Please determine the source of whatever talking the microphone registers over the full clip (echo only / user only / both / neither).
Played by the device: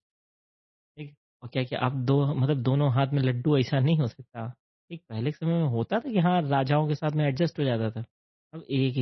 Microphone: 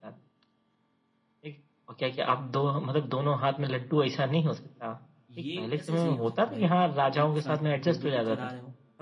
both